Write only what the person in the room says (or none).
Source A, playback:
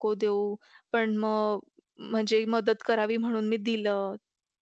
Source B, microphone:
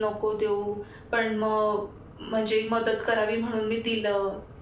none